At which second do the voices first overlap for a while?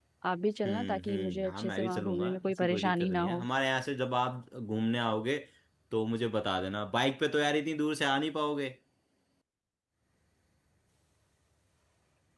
0.6 s

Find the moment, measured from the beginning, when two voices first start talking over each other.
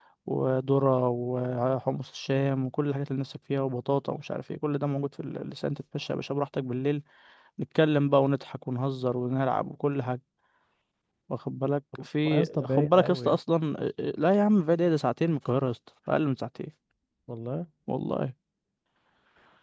12.0 s

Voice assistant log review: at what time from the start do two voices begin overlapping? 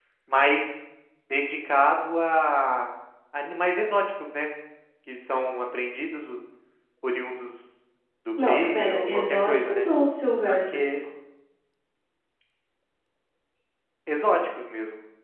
8.4 s

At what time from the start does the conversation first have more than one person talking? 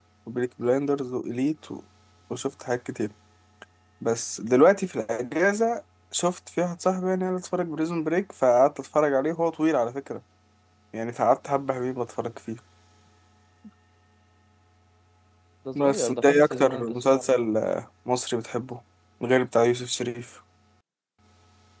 15.8 s

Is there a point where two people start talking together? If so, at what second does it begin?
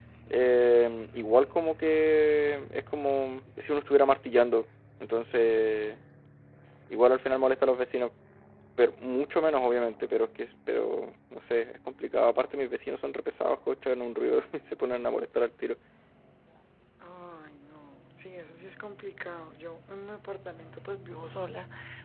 none

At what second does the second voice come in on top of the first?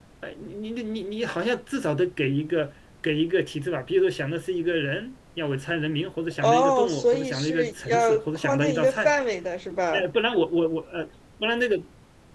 6.4 s

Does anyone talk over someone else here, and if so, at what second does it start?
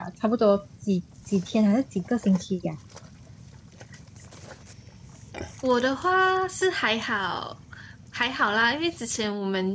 none

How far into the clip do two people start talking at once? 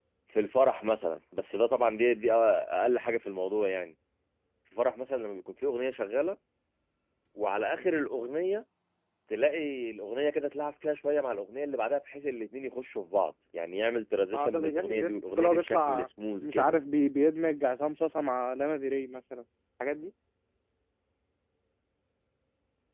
14.3 s

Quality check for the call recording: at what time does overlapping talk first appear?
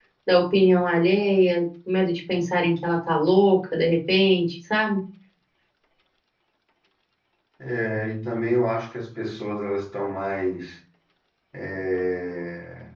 none

